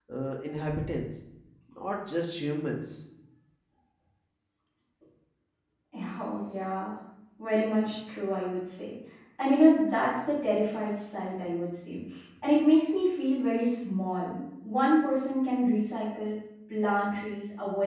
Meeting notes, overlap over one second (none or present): none